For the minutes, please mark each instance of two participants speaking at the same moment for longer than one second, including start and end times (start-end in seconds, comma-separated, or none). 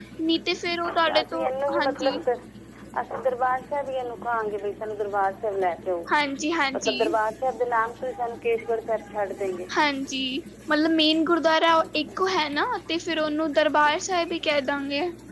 0.9-2.2